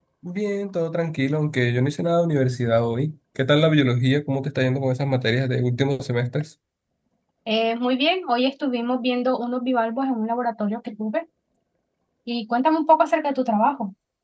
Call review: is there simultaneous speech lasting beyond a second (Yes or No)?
No